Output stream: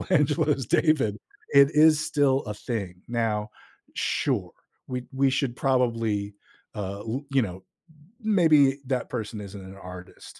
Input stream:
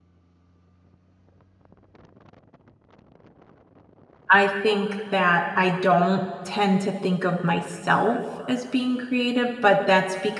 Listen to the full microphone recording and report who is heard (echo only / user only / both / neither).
user only